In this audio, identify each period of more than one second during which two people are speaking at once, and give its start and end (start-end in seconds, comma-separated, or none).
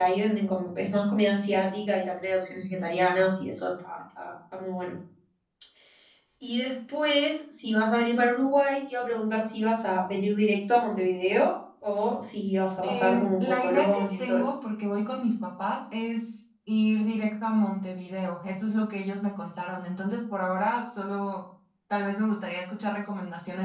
12.8-14.5